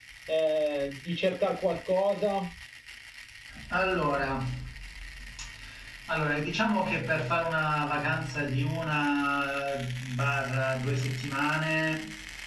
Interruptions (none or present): none